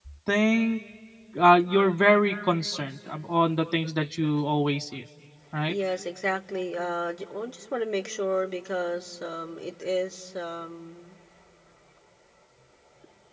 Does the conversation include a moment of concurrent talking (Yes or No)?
No